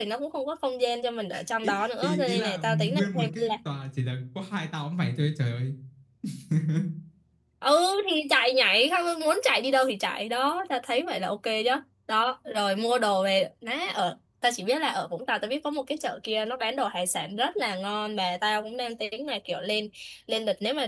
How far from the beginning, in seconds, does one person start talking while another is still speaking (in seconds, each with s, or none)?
1.6 s